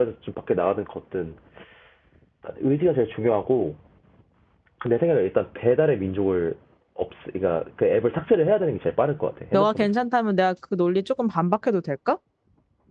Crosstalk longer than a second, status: none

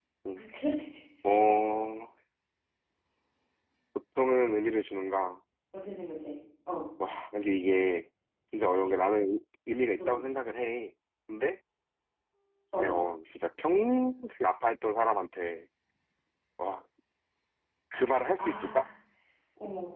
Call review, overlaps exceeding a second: none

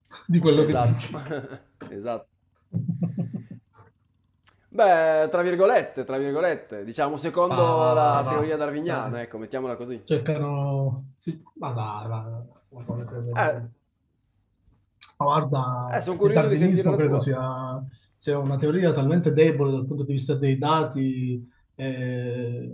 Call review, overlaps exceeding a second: present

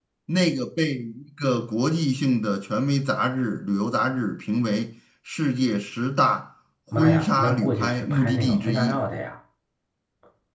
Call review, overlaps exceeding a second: present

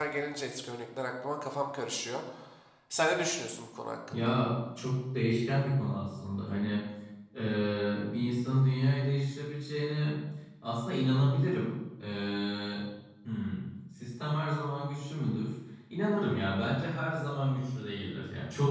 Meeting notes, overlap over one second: none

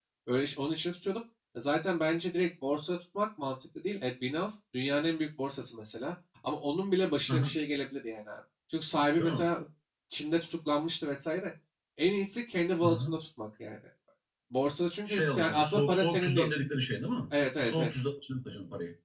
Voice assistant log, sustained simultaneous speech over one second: present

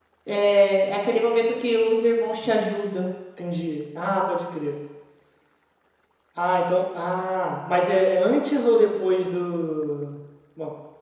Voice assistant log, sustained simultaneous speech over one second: none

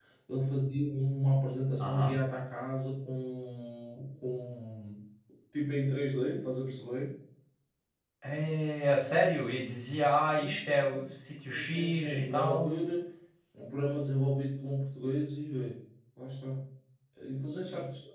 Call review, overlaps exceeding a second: present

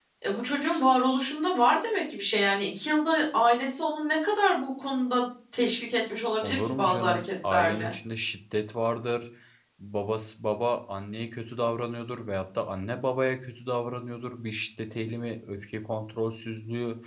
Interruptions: present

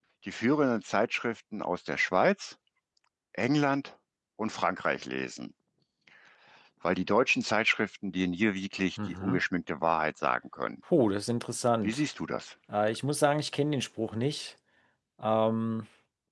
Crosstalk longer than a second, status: none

